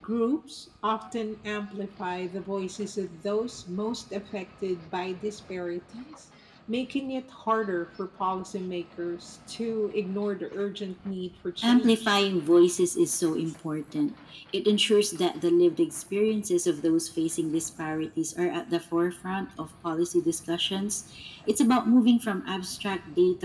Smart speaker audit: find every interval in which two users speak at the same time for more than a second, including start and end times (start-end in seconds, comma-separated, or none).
none